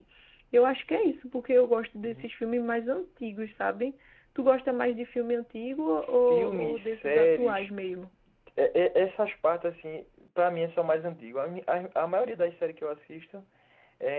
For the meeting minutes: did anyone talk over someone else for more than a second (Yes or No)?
Yes